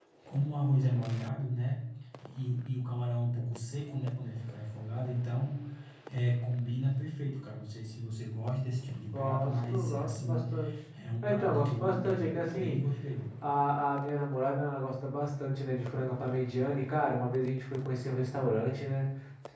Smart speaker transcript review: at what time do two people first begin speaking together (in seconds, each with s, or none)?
9.1 s